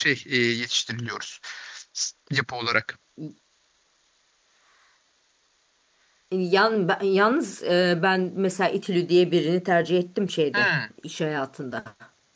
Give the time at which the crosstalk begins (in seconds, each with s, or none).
none